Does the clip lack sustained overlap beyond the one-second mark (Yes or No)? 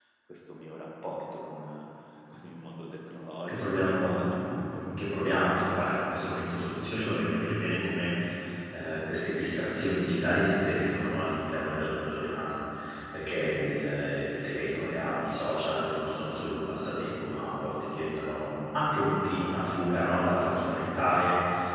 No